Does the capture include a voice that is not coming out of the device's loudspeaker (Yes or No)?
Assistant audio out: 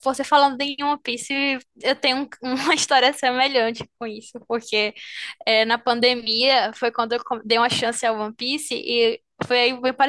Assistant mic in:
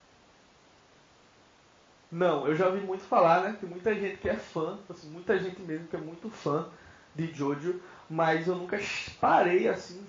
Yes